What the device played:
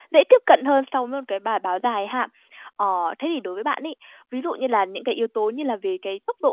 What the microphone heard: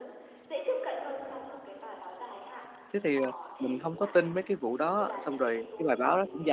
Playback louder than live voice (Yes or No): No